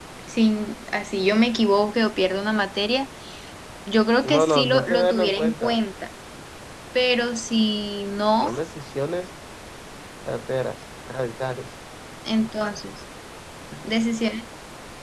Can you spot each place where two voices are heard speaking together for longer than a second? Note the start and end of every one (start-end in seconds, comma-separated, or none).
4.4-5.8